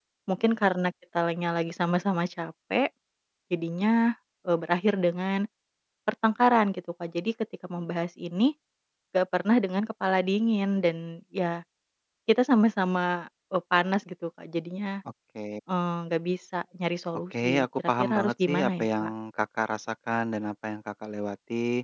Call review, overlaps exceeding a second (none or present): present